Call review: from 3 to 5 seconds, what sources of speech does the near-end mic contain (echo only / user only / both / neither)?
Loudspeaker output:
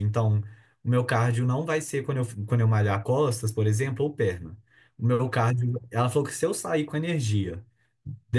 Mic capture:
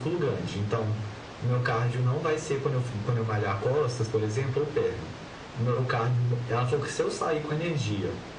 echo only